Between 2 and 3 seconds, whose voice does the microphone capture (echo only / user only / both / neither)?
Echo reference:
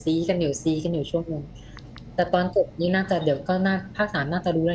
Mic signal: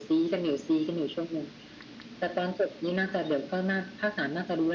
echo only